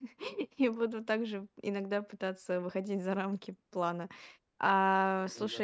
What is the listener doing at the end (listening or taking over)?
listening